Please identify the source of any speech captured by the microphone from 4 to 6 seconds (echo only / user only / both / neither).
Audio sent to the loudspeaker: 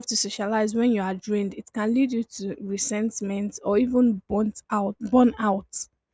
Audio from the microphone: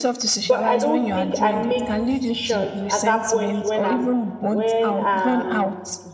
both